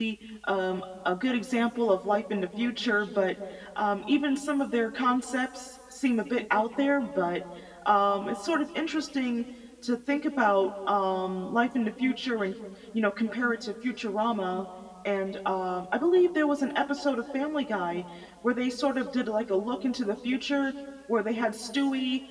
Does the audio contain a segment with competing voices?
No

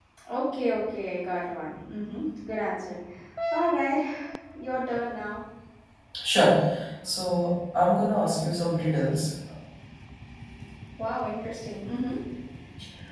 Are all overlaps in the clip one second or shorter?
Yes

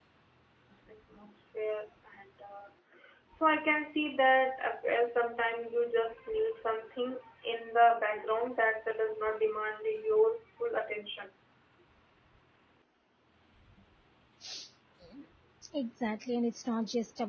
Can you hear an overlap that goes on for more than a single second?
No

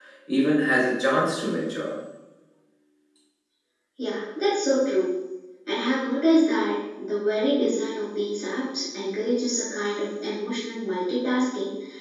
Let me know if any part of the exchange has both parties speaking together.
No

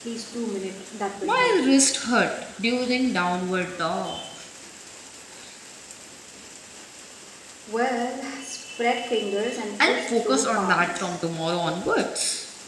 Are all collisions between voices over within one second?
No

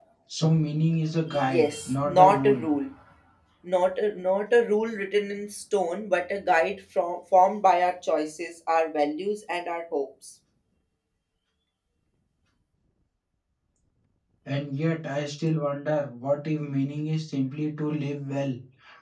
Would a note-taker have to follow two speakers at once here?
Yes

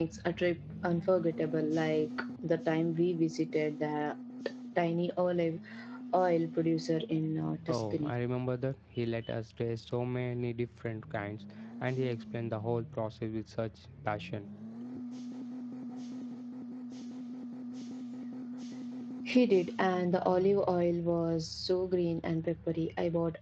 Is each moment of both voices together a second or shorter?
Yes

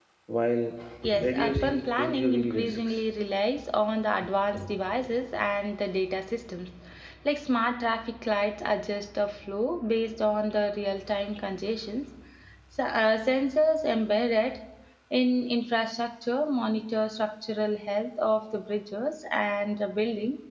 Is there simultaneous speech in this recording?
Yes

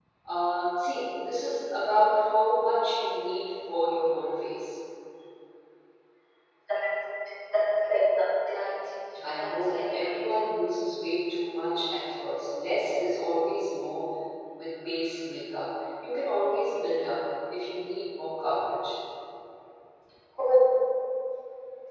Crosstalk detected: Yes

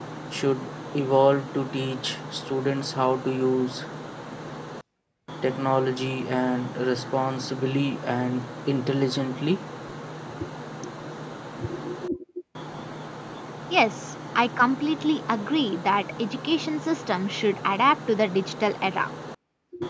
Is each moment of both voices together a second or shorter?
Yes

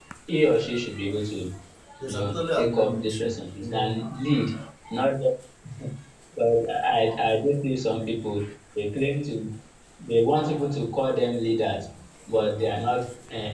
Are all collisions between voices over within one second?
No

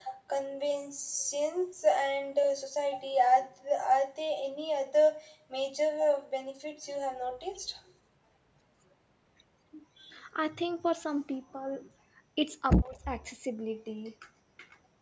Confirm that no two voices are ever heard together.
Yes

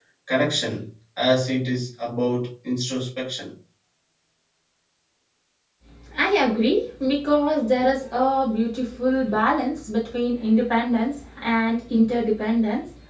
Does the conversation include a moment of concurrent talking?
No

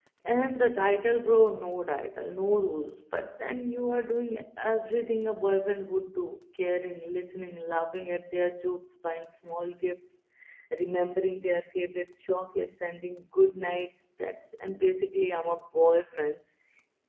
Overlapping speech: No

